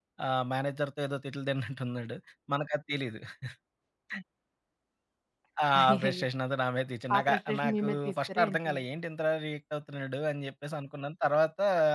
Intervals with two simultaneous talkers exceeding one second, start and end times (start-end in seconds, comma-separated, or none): 7.2-8.7